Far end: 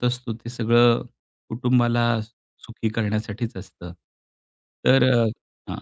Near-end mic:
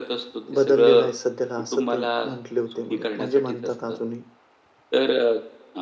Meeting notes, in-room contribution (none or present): present